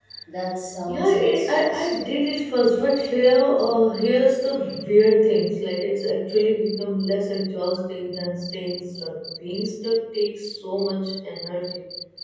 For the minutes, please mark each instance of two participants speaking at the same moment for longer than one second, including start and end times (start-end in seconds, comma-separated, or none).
0.9-2.2